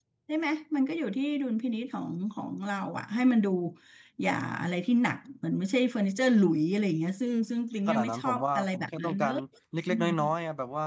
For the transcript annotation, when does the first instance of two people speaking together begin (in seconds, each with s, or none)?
7.9 s